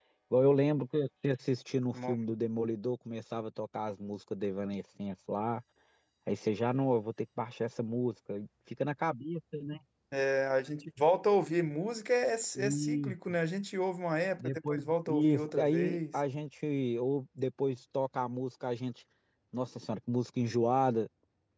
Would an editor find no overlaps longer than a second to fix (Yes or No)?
No